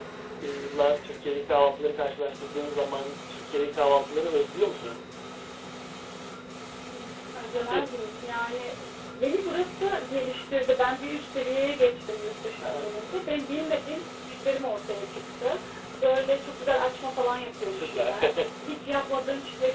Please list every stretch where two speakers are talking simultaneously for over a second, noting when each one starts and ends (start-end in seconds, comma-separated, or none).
none